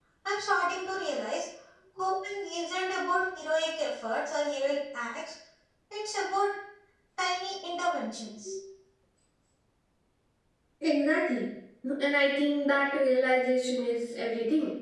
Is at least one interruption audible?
No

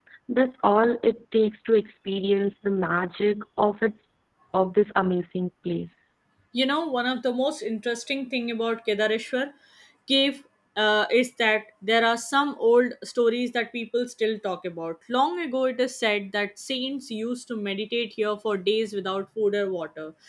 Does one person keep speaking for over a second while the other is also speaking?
No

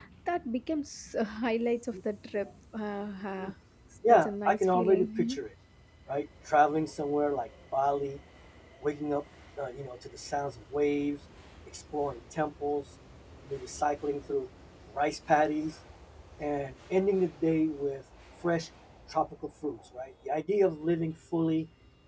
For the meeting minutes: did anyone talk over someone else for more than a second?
Yes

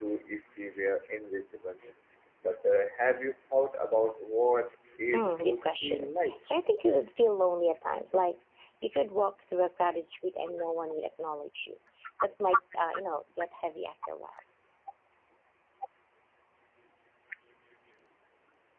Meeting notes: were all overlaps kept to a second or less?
No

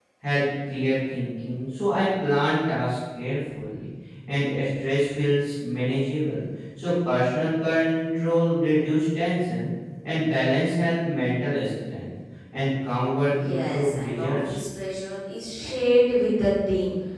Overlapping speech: Yes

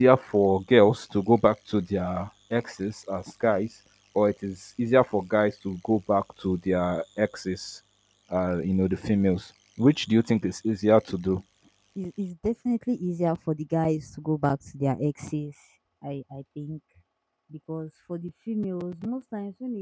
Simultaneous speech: No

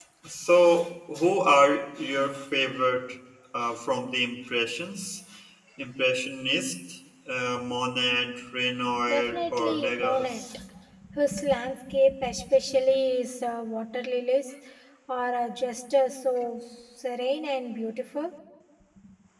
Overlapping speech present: Yes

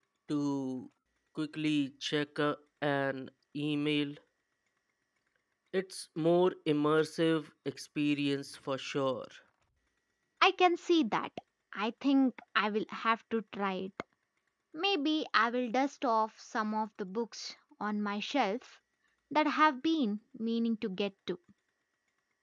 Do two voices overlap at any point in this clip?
No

